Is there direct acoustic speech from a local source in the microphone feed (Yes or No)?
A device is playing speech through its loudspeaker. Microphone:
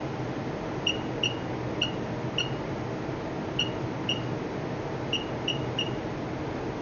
No